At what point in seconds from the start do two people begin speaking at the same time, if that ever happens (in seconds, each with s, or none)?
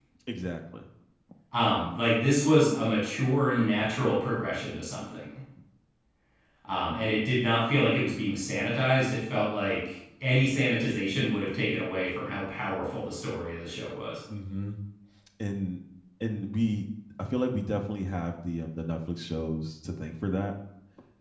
none